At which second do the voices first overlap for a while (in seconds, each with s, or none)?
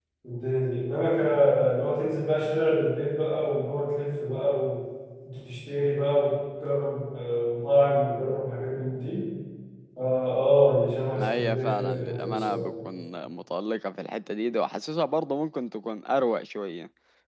11.2 s